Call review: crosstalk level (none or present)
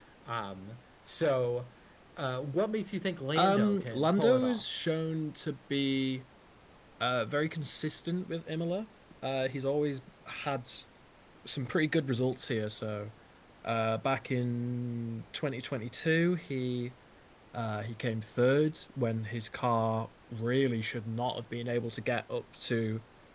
present